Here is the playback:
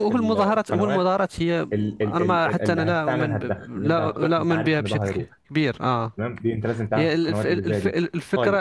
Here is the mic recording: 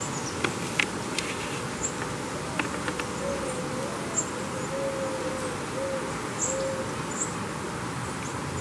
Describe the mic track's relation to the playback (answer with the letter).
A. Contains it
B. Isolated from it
B